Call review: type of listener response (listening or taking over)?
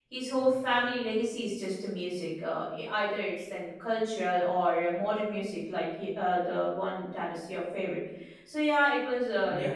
listening